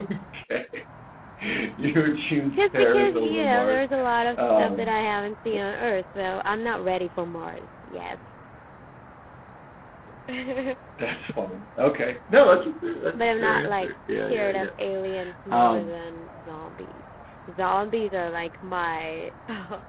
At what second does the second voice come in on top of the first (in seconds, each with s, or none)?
2.5 s